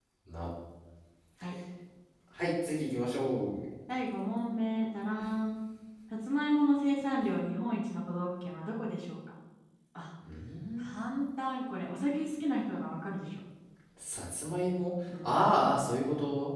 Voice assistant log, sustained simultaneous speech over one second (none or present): none